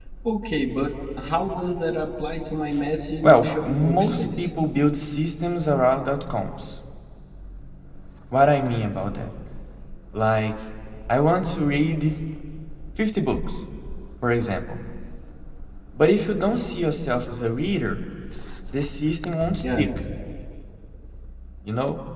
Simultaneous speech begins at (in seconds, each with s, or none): 3.2 s